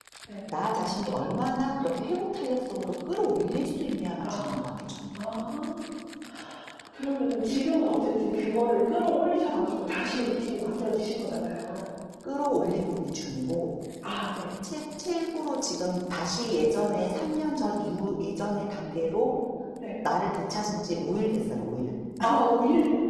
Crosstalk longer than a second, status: none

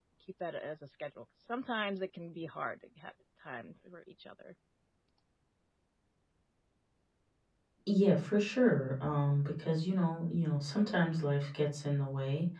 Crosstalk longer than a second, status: none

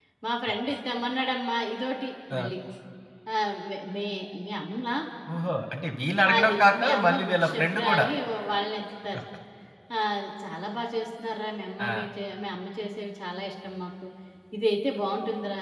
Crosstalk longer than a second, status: present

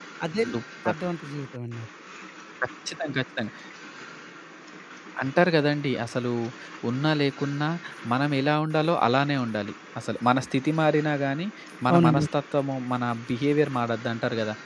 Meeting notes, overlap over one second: none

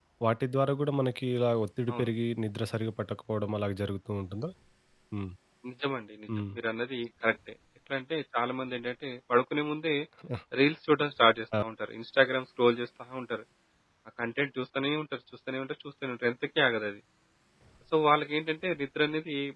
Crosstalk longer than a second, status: none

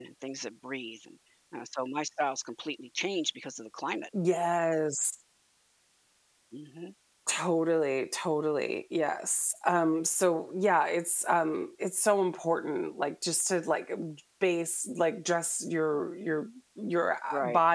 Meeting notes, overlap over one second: none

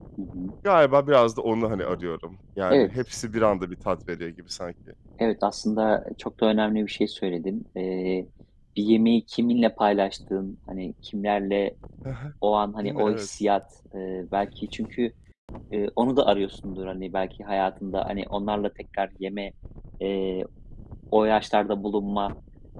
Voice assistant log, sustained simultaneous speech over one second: none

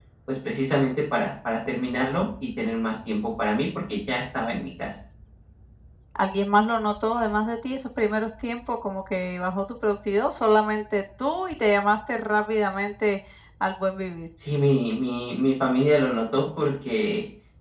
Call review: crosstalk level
none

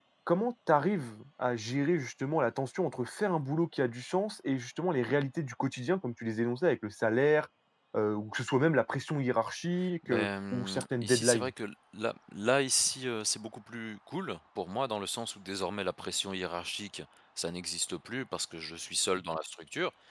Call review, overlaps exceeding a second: present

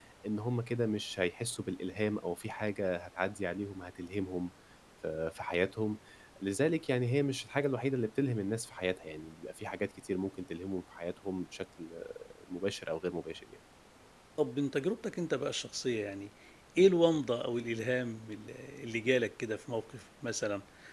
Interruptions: none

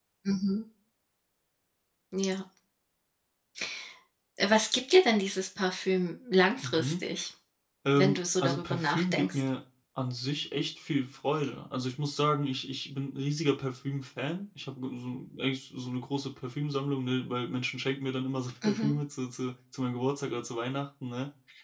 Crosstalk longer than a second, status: present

